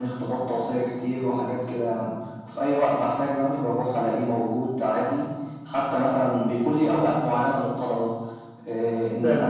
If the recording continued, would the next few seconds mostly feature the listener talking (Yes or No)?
No